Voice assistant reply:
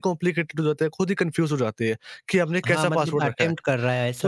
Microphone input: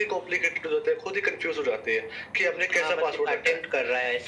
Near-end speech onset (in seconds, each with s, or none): none